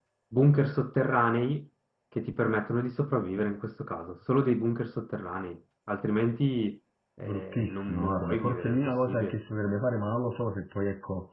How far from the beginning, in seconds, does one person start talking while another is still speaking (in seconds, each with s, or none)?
7.2 s